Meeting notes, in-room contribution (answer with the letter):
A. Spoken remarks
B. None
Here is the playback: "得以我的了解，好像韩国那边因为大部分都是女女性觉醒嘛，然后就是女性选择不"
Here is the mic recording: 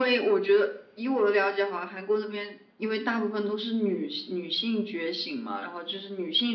B